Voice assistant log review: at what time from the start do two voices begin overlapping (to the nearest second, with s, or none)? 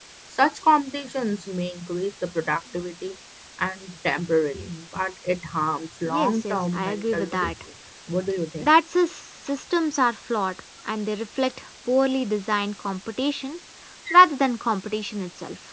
6 s